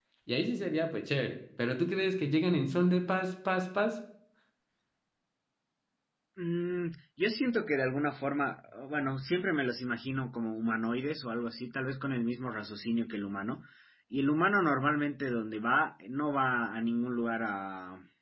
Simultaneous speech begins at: none

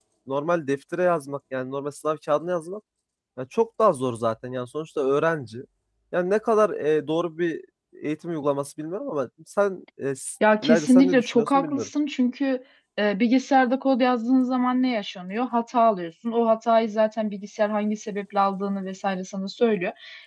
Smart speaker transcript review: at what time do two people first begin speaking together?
10.4 s

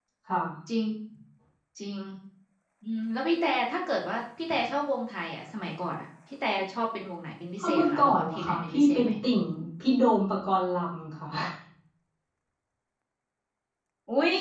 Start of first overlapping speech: 7.6 s

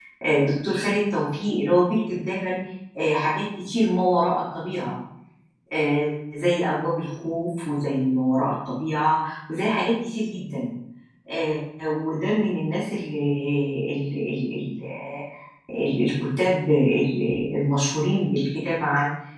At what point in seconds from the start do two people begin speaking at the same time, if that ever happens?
none

